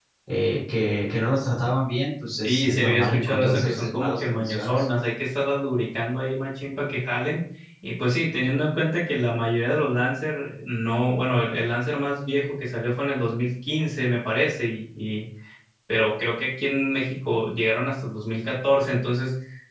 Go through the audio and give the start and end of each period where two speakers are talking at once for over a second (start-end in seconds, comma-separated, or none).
2.4-4.8